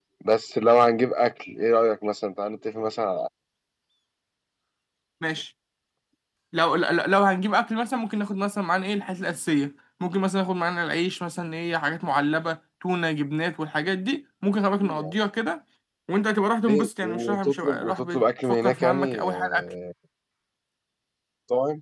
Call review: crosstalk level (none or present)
present